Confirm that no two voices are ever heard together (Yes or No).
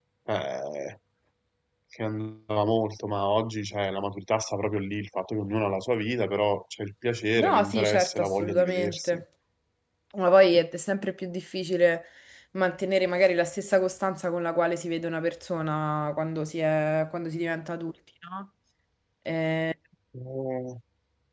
No